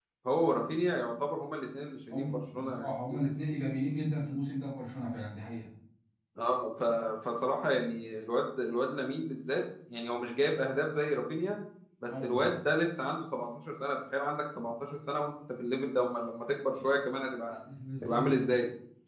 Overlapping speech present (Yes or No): Yes